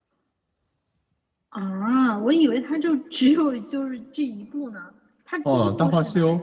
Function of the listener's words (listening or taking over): taking over